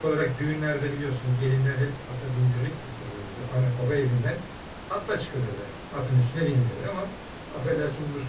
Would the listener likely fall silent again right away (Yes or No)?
Yes